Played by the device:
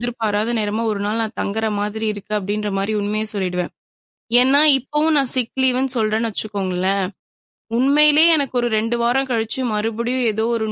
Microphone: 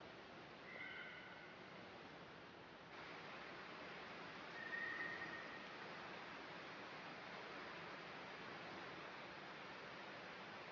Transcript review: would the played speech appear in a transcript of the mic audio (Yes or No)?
No